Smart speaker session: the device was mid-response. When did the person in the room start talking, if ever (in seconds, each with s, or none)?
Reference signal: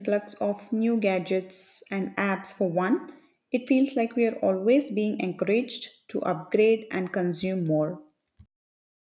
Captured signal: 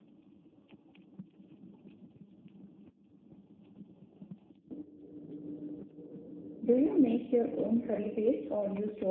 6.6 s